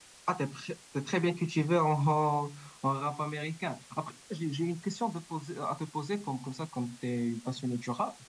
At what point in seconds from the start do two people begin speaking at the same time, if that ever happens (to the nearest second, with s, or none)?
none